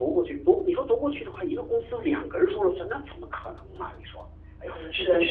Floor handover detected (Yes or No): Yes